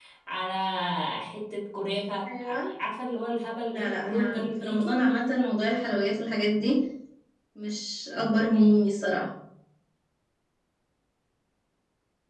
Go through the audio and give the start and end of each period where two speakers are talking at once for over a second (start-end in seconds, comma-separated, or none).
3.7-5.0